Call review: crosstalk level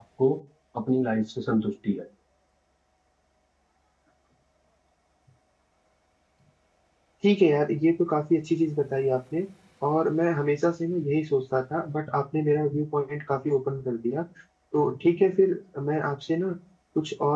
none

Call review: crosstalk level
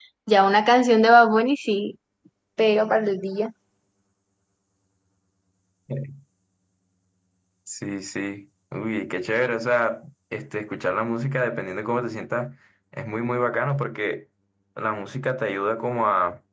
none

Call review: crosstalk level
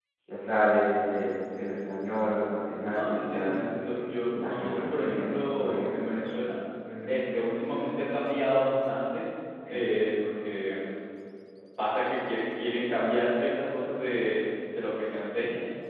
present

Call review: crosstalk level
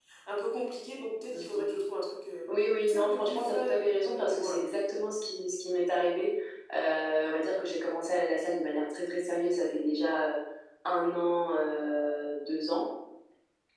present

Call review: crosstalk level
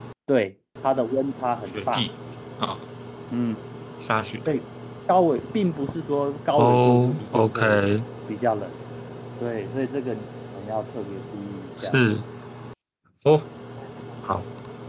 present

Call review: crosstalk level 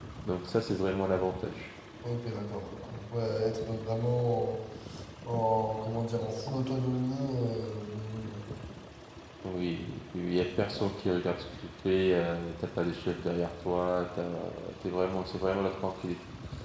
none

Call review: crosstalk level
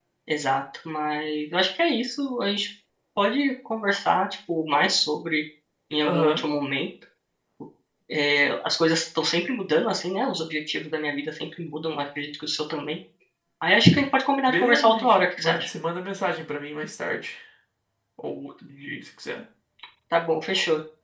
present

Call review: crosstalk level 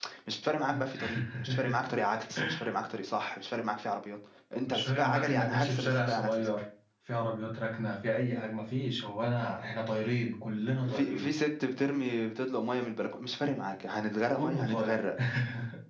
present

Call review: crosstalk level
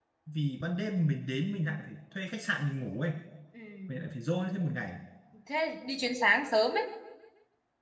none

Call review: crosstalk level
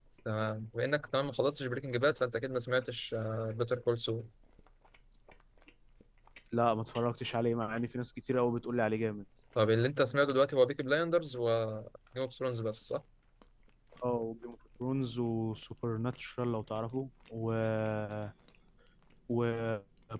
none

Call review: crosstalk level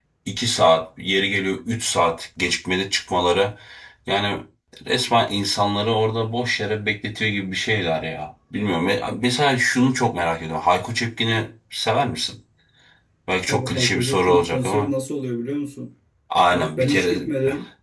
present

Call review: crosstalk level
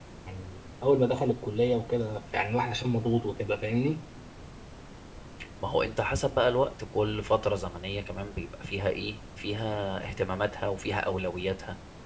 none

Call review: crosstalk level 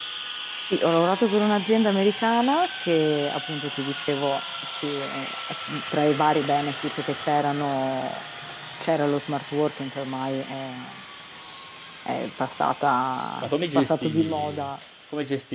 present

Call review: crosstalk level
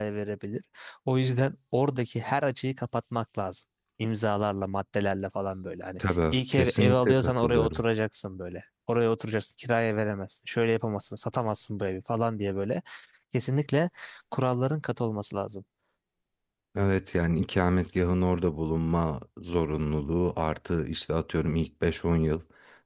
present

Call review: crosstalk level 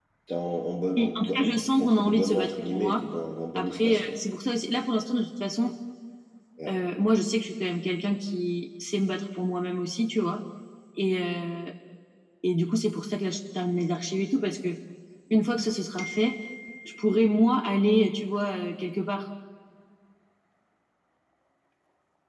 present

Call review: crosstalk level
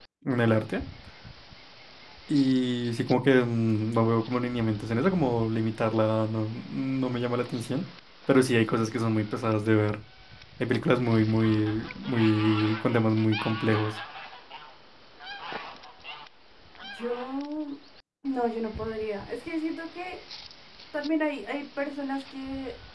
none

